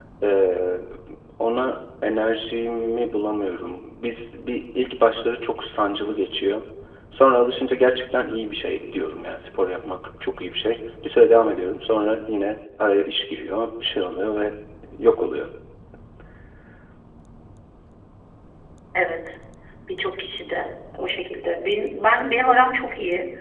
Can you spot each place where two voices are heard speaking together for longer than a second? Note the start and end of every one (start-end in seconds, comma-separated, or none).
none